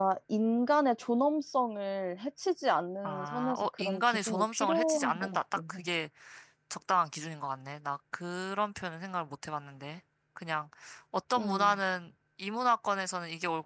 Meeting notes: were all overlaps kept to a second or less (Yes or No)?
No